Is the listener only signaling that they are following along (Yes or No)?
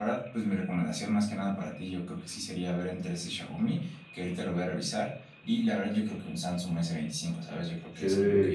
No